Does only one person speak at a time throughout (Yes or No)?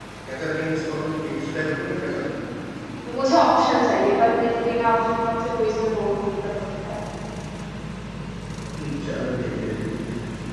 Yes